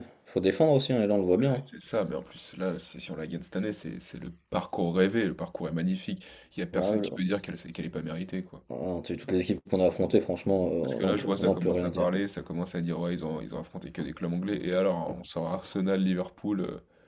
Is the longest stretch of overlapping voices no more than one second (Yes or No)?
No